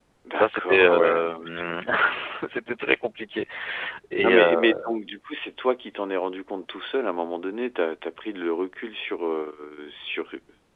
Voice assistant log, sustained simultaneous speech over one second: present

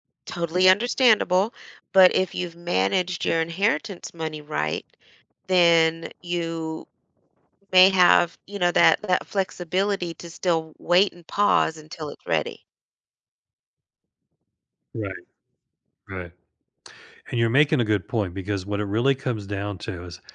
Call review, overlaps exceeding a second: none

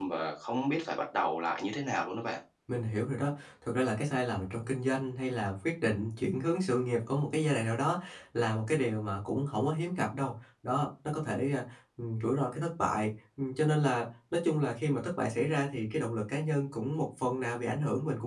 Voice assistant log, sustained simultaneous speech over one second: none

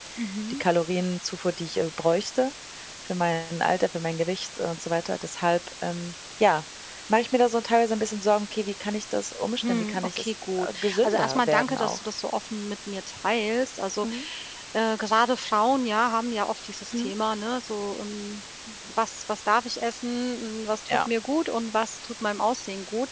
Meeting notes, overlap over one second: present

